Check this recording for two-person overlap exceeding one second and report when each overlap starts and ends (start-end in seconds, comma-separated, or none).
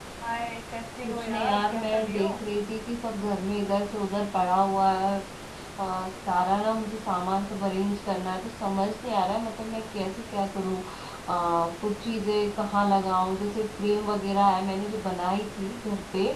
1.0-2.3